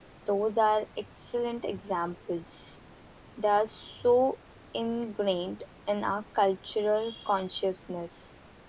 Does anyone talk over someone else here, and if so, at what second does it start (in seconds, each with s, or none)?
none